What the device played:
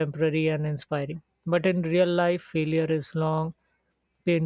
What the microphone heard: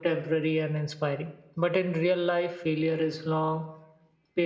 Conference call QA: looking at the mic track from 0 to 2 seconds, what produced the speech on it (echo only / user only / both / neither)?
echo only